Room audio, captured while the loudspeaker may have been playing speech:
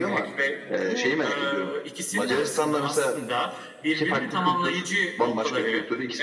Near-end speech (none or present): none